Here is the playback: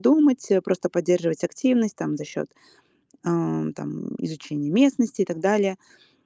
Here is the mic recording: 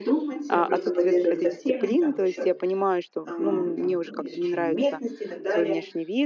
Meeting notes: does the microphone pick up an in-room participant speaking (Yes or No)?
Yes